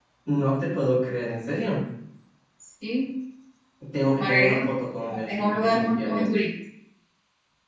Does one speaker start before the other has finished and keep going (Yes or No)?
Yes